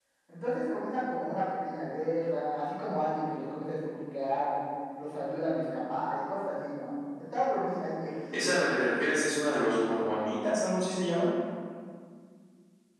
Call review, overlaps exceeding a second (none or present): none